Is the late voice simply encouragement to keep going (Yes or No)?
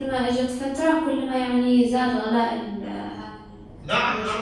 No